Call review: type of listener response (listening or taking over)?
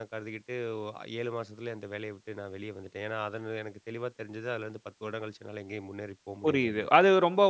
taking over